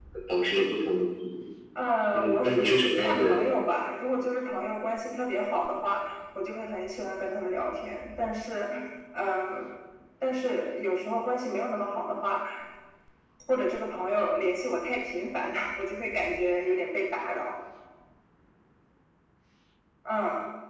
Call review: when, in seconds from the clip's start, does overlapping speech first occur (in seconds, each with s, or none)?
2.1 s